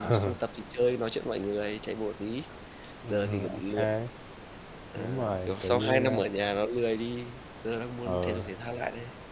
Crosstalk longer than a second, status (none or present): present